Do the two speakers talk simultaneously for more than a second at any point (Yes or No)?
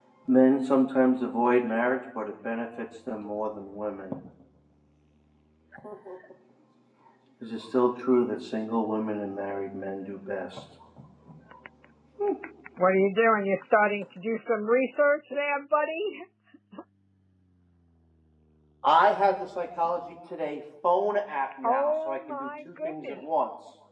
Yes